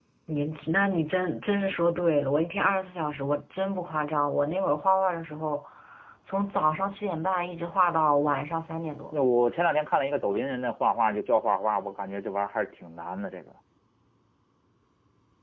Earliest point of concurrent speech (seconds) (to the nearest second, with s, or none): none